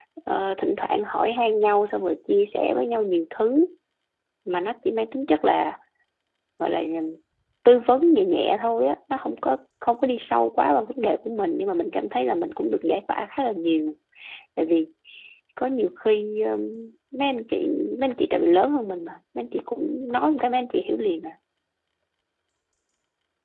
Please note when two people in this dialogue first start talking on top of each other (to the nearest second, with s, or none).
none